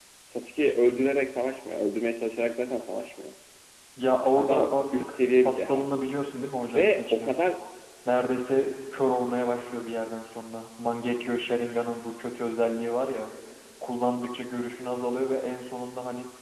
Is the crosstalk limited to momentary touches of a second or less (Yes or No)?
No